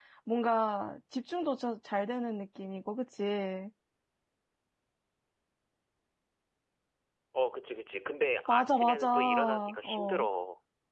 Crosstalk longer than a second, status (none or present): present